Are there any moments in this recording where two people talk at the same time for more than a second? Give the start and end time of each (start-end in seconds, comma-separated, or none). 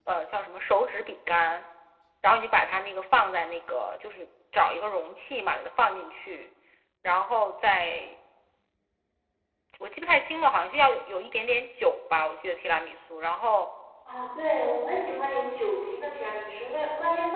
none